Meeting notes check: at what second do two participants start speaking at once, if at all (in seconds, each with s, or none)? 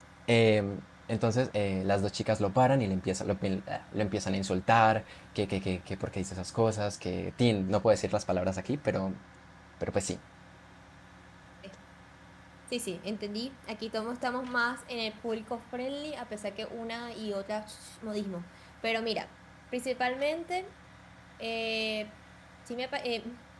none